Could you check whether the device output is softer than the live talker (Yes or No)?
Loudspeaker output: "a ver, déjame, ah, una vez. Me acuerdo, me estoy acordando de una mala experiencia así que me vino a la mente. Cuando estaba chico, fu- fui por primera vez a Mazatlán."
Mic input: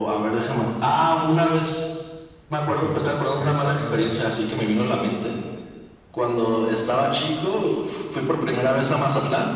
No